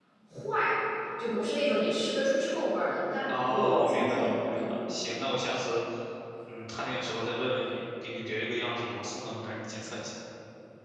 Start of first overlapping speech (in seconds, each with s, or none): 3.3 s